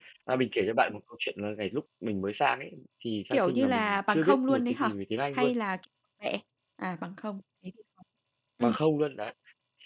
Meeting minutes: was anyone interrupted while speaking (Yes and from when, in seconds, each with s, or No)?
Yes, from 3.3 s